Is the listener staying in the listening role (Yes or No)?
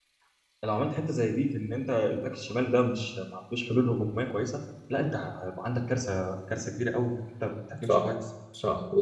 No